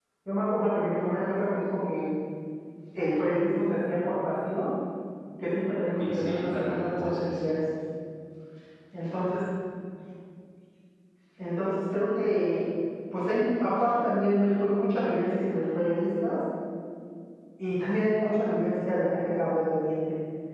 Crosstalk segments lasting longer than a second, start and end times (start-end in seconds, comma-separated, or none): 6.0-7.4